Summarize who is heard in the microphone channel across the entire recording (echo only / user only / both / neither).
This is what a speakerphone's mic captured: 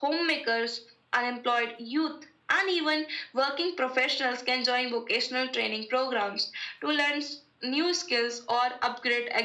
echo only